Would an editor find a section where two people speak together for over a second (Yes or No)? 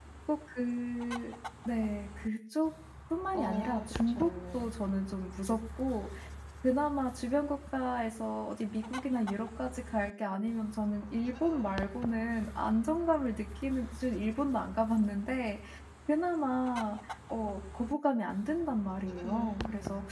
Yes